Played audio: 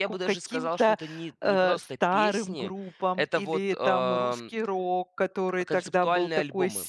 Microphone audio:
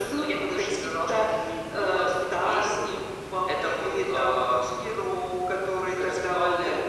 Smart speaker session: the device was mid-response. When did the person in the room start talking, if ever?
none

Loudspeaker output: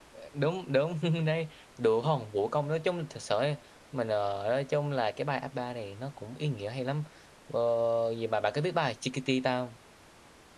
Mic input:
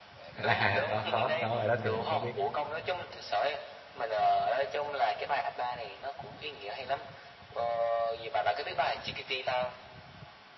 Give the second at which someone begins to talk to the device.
0.4 s

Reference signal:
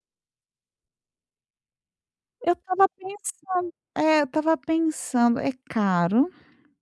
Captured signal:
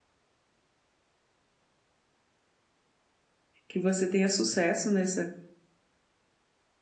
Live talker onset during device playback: 3.7 s

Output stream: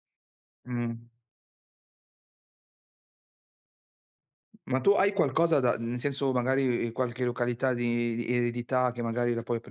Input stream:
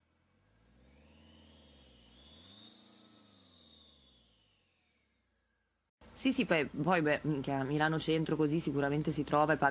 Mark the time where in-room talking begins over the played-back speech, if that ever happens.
6.1 s

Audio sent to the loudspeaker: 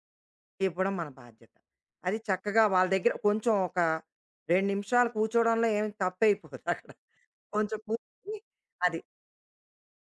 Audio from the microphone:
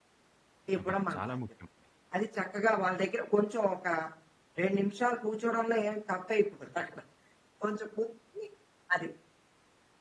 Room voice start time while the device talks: 0.8 s

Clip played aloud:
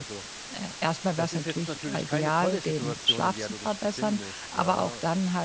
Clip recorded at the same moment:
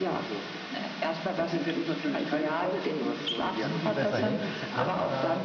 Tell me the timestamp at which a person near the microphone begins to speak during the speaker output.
3.6 s

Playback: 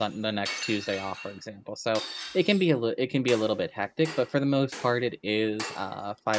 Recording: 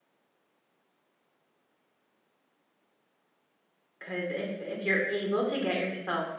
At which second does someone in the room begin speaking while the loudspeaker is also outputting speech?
4.0 s

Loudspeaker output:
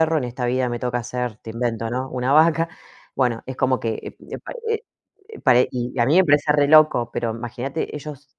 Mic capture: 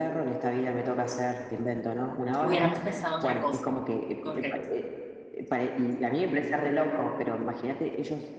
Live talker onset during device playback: 2.4 s

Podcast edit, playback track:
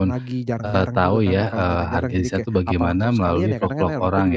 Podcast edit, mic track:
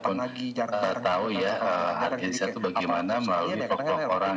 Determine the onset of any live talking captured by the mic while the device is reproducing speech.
none

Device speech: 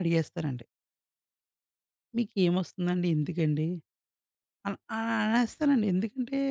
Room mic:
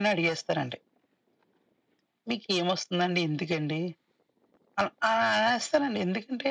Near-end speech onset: none

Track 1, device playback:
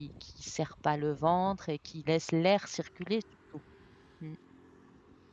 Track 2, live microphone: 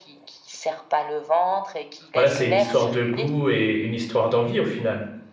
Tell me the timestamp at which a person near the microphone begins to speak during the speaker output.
2.1 s

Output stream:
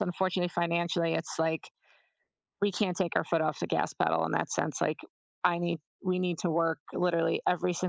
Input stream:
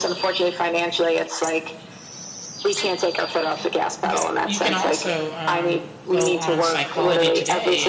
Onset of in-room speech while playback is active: 2.6 s

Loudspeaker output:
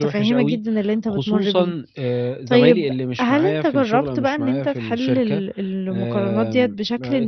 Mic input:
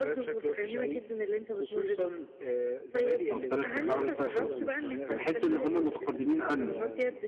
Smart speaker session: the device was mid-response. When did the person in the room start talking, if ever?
3.3 s

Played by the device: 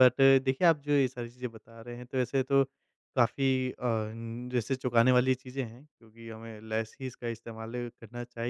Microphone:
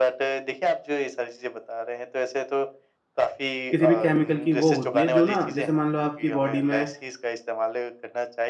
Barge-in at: 3.7 s

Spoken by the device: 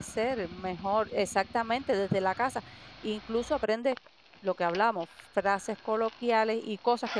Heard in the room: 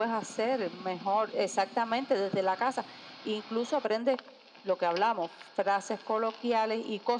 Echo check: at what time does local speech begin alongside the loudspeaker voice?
none

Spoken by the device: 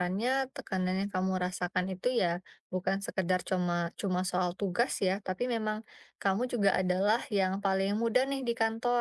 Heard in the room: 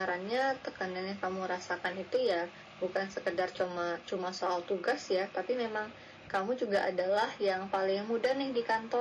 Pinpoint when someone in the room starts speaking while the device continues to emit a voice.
none

